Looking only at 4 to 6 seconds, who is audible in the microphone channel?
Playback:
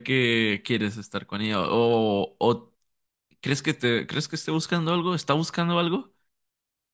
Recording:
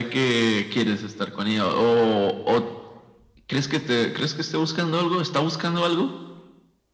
echo only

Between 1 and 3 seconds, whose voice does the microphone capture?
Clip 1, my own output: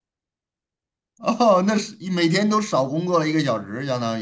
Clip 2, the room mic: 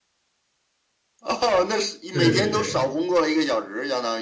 both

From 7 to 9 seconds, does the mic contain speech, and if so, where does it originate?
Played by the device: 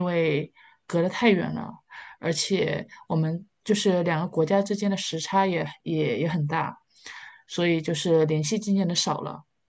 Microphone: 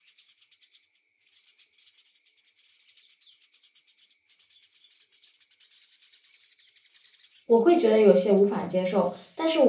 user only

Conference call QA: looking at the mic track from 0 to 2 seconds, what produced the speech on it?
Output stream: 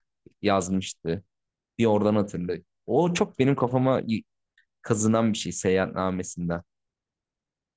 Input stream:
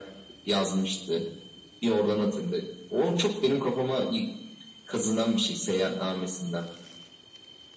echo only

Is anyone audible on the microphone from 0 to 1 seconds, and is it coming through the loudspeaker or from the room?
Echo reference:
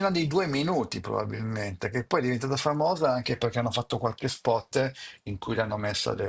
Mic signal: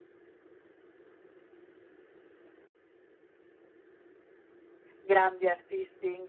neither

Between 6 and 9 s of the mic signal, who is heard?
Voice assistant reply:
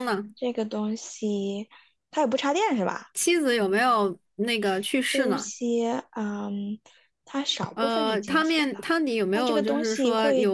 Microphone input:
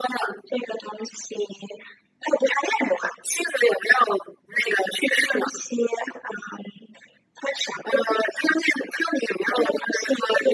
echo only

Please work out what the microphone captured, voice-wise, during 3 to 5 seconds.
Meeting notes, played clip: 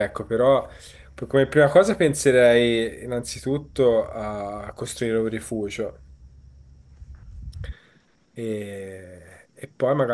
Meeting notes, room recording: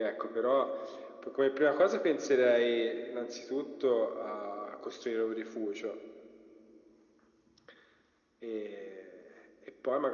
echo only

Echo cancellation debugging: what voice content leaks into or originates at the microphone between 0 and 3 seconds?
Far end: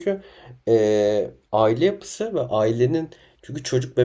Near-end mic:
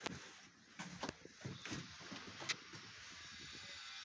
neither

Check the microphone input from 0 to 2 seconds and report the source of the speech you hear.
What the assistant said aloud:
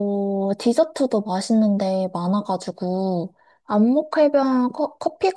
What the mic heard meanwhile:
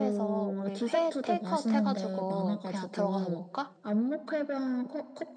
both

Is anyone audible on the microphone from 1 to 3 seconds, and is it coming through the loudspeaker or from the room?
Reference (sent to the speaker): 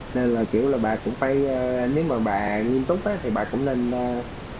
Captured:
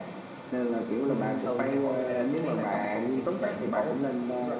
both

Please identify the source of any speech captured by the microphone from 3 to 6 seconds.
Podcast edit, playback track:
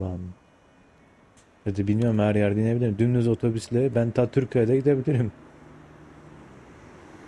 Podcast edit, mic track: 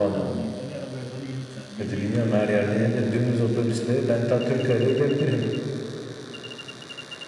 both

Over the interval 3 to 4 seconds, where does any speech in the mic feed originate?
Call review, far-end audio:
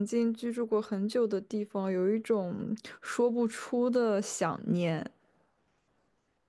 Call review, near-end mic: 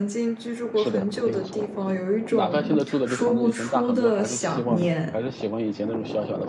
both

